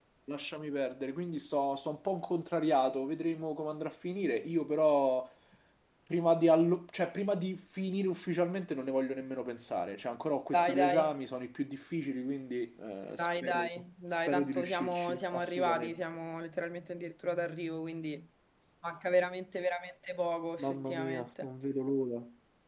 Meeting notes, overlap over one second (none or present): present